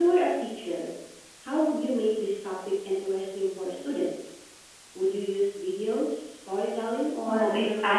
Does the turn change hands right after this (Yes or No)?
Yes